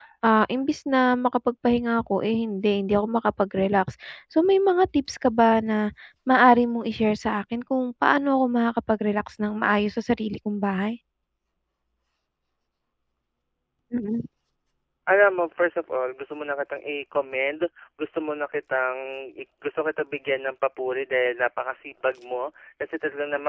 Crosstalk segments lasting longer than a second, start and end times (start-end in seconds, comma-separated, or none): none